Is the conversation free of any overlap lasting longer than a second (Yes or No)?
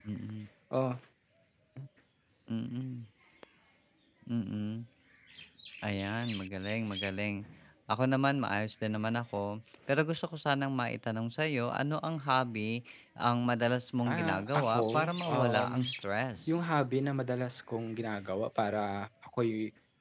No